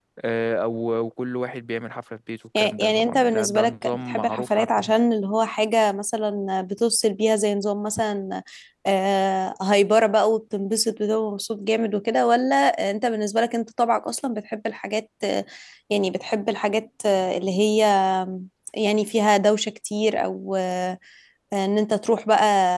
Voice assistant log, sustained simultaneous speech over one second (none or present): present